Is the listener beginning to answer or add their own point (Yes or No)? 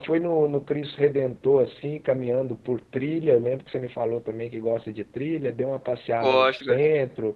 No